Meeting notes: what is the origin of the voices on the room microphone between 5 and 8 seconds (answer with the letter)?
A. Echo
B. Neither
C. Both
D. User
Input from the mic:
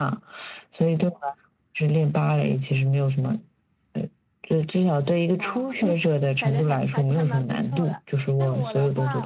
C